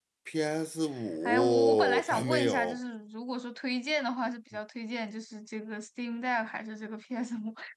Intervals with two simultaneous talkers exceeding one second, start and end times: 1.2-2.8

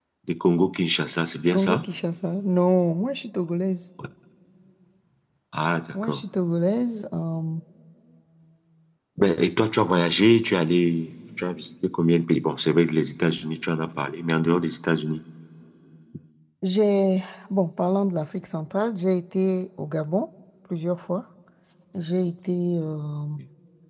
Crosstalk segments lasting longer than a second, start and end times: none

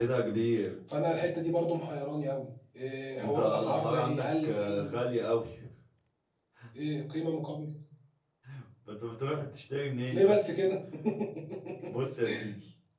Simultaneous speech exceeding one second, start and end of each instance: 3.2-5.0

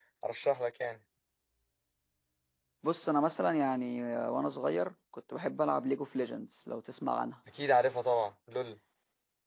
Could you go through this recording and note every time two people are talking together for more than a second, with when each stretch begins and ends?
none

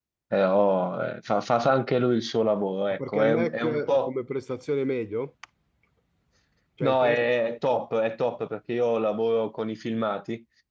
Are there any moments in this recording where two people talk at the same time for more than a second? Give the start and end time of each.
2.9-4.1

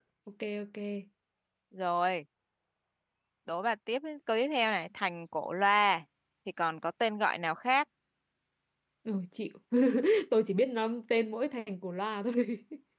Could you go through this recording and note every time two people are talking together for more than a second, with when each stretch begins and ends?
none

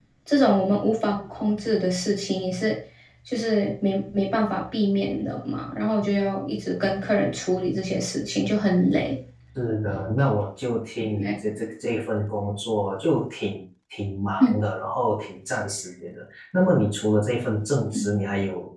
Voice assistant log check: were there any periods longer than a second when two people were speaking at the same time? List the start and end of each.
none

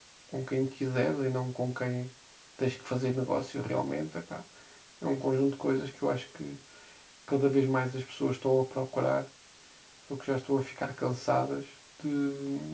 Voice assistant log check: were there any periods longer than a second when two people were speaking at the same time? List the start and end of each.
none

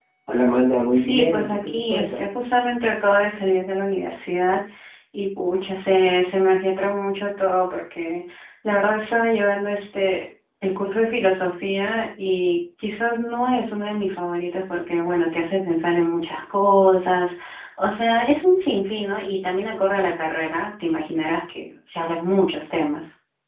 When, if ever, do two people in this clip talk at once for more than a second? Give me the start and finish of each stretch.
0.9-2.3

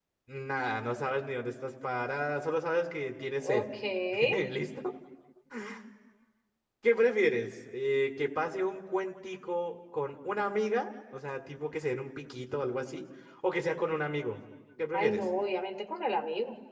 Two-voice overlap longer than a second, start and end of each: none

